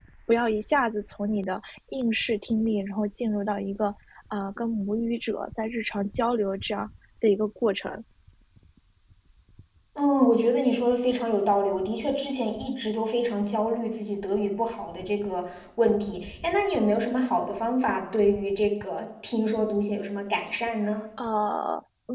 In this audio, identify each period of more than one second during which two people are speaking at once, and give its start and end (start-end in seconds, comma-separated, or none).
none